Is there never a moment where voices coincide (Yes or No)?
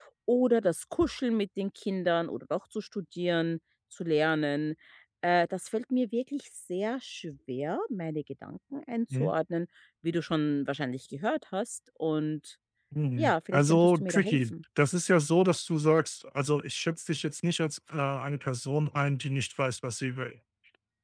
No